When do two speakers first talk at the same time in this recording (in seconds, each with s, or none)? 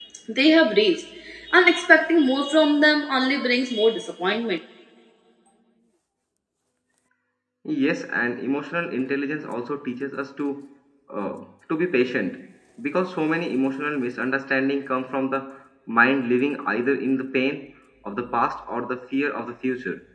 none